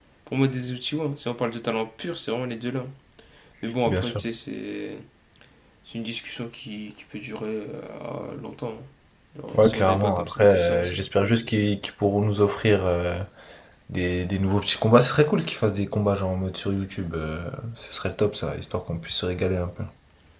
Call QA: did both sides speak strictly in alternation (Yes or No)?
No